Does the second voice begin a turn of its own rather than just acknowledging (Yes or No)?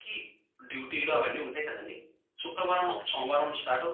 No